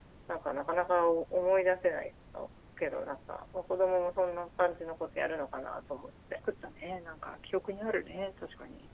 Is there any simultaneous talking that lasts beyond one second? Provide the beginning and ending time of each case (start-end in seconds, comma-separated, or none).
none